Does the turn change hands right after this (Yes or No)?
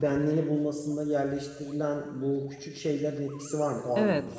Yes